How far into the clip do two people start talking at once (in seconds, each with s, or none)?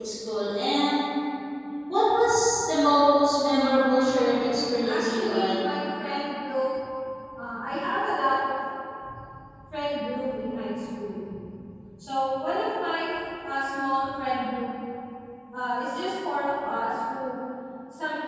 4.0 s